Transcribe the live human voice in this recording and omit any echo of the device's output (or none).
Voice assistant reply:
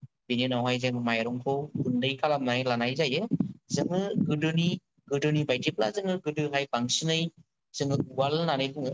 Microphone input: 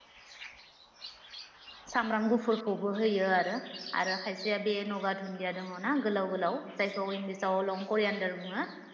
सामब्राम गुफुरखौबो होयो आरो आरो खायसेया बे नगा दुन्दिया दङ ना गोलाव गोलाव जायखौ इंलिस जाव लं करियानदार बुङो